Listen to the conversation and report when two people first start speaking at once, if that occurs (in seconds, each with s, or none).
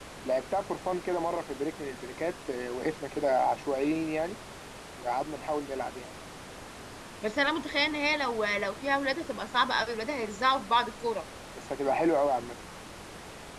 none